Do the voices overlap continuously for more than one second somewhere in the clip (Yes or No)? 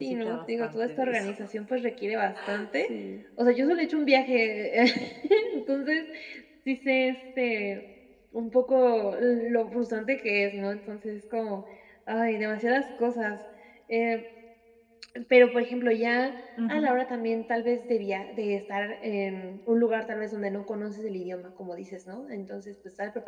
Yes